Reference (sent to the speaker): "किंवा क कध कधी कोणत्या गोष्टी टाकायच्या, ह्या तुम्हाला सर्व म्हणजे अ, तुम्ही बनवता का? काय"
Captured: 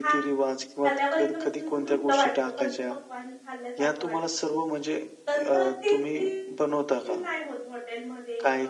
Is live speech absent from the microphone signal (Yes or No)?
No